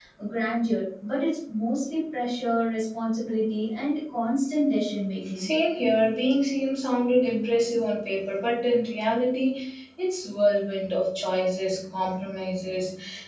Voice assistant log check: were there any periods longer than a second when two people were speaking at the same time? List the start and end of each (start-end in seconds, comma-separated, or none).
none